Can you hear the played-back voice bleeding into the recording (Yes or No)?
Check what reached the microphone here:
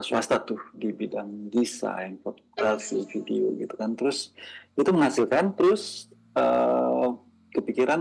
Yes